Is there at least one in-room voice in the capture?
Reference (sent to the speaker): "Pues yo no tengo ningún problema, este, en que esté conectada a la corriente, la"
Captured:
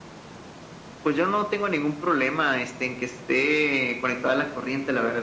No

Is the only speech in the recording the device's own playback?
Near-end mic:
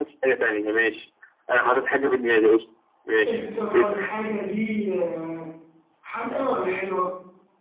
No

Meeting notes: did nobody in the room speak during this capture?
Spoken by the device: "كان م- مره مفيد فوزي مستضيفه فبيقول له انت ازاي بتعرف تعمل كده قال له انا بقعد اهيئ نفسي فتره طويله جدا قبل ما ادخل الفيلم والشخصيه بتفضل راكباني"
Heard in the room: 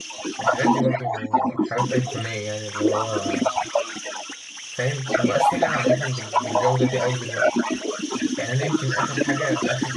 No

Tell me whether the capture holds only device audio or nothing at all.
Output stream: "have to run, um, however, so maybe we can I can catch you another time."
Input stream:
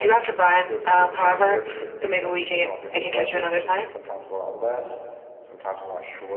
No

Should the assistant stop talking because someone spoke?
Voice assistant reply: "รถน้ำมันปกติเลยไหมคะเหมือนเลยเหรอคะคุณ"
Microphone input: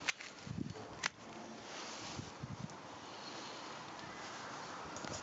No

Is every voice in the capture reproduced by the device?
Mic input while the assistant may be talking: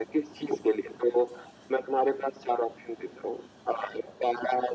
Yes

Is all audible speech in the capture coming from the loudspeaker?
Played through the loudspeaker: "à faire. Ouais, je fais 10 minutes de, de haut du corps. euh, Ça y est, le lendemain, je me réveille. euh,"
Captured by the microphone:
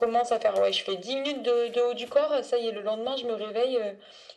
Yes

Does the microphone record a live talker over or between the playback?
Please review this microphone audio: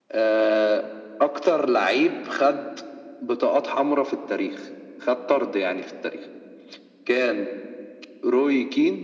No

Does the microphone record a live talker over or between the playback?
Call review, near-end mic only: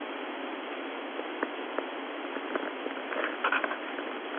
No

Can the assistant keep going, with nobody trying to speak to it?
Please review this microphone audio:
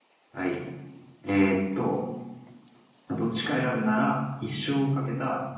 No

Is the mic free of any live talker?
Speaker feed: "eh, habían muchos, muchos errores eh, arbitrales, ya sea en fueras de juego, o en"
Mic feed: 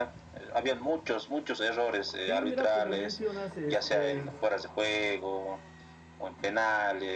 No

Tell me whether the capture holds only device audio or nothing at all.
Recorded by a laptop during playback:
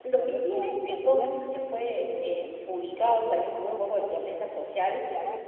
No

